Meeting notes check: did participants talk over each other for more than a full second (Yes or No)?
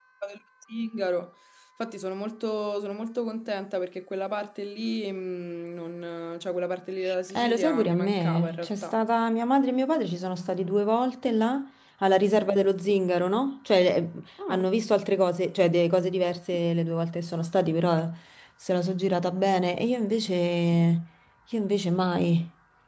Yes